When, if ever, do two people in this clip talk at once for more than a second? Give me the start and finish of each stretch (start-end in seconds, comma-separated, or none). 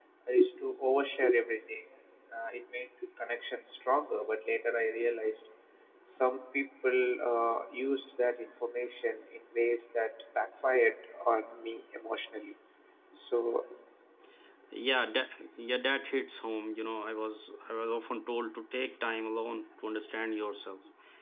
none